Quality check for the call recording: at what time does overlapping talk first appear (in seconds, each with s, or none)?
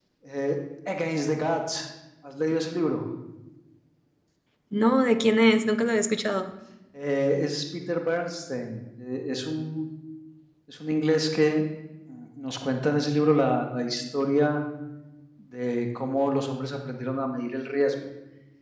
none